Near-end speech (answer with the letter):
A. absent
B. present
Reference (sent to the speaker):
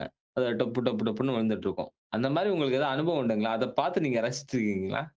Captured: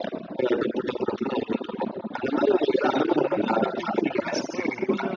B